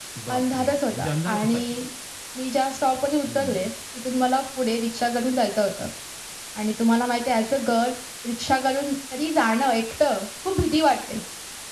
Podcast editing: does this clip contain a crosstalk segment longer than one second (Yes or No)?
Yes